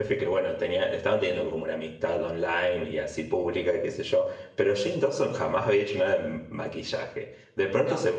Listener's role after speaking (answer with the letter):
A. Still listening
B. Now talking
A